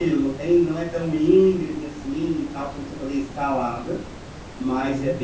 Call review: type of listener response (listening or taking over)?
listening